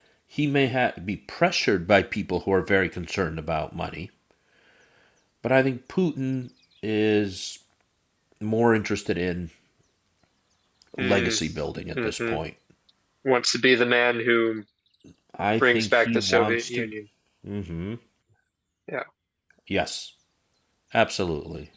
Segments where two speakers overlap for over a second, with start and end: 15.6-16.9

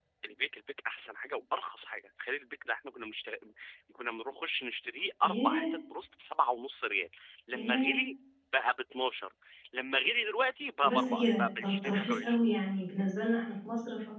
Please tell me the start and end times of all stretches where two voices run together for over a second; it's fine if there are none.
10.8-12.4

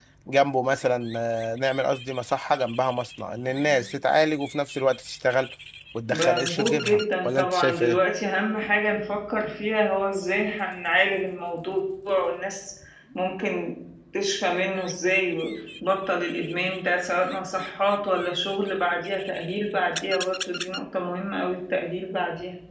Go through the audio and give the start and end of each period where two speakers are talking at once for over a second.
6.1-8.0

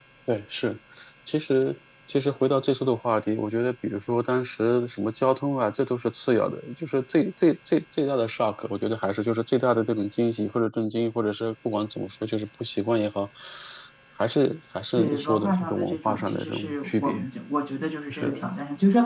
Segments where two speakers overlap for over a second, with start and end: 15.0-17.2

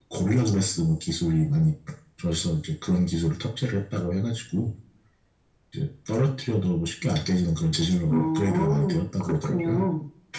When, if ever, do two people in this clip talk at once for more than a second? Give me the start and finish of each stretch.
8.1-9.8

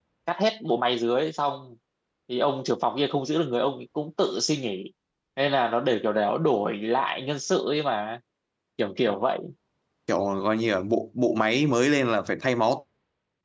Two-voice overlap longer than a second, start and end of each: none

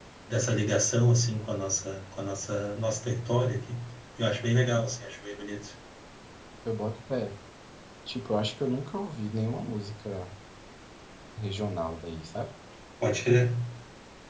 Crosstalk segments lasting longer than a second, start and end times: none

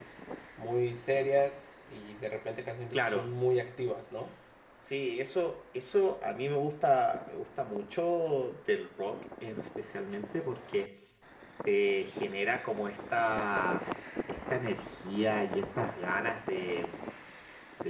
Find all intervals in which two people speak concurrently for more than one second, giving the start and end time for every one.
none

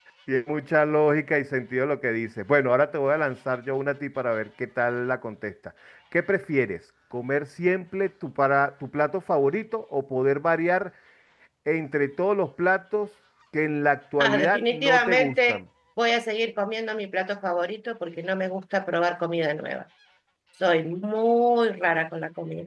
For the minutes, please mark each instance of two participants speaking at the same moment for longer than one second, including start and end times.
14.2-15.6

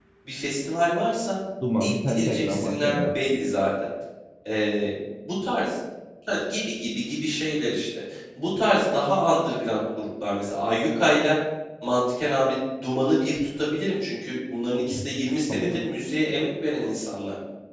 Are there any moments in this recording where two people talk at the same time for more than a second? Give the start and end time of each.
1.8-3.1

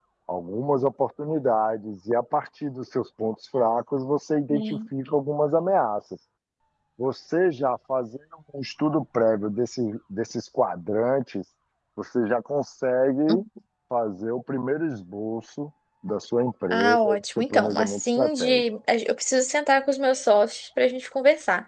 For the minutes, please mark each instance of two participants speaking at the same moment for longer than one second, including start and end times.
16.7-18.6

